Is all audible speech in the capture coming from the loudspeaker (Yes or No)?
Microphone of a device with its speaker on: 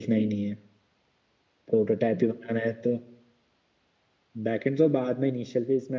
Yes